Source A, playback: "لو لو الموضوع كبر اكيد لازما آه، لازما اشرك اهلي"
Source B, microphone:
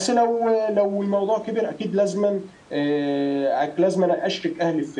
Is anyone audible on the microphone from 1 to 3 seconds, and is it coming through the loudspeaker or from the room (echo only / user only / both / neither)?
echo only